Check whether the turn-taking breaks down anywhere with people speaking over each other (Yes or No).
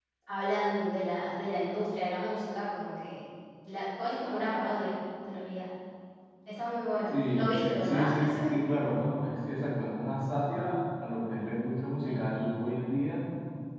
Yes